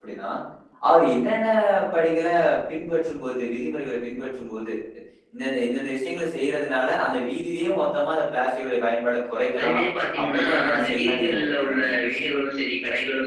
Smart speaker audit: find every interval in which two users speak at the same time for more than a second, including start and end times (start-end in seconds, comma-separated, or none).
10.2-11.7